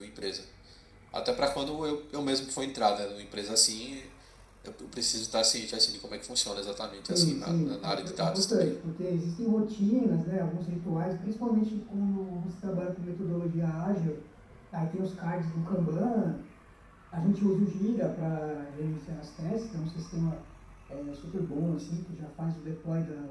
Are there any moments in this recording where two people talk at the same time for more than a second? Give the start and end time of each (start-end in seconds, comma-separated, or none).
7.1-8.7